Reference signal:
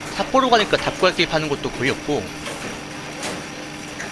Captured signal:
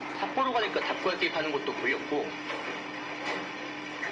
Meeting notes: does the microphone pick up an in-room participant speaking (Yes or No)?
No